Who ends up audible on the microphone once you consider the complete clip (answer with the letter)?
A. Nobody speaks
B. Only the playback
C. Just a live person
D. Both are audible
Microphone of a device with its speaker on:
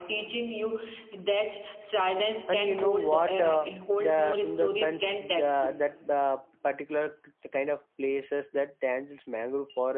D